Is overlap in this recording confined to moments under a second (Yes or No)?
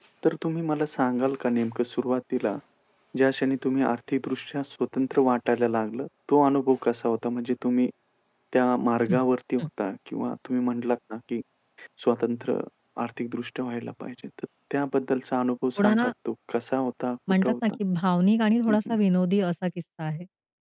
Yes